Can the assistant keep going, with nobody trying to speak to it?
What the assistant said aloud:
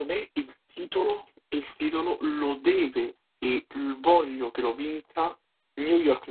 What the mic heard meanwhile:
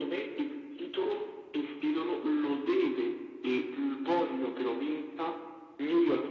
Yes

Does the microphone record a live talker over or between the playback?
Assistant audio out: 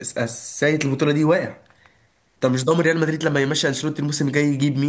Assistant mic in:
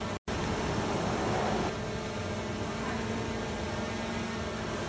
No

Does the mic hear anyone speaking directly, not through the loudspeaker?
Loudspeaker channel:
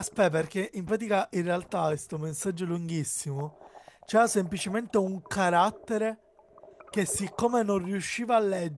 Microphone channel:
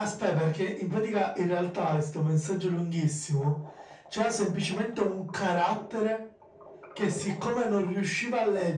No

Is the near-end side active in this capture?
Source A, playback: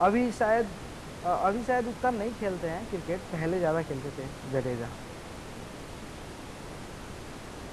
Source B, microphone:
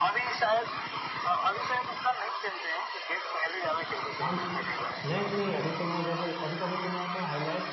Yes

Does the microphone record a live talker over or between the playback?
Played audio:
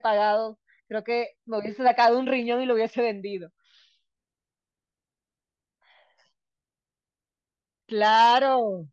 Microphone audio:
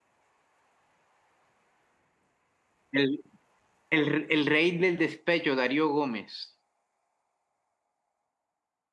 Yes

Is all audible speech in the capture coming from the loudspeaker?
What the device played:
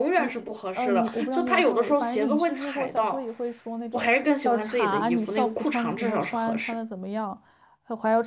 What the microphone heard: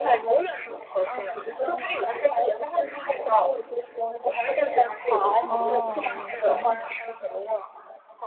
No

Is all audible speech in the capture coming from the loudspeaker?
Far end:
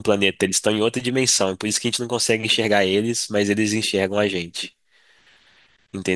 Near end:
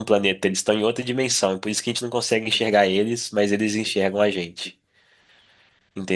Yes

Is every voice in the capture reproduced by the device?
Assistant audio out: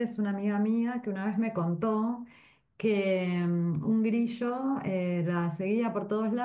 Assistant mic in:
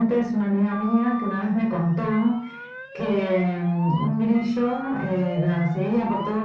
Yes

